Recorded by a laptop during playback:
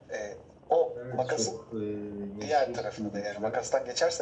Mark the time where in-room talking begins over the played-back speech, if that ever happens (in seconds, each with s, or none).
0.9 s